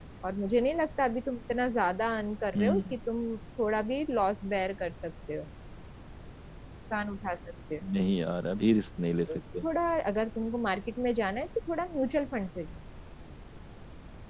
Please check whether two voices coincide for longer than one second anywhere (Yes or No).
No